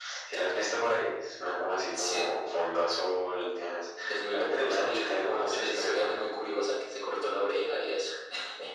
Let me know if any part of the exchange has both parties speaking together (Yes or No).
Yes